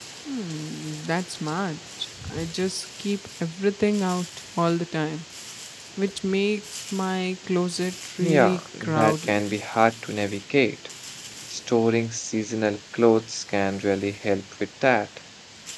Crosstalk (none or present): present